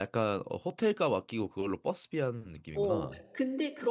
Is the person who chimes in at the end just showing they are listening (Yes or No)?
No